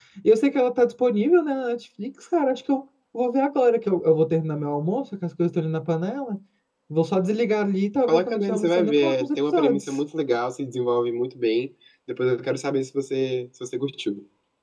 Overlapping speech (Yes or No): Yes